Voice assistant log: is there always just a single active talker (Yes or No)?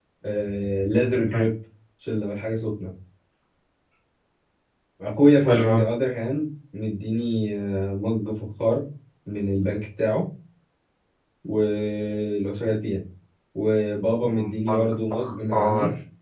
No